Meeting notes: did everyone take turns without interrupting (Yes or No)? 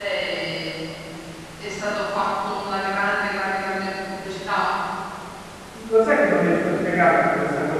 Yes